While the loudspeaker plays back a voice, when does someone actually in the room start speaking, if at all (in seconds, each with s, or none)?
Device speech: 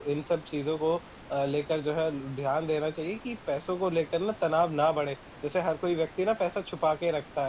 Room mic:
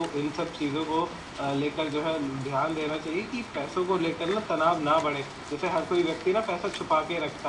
none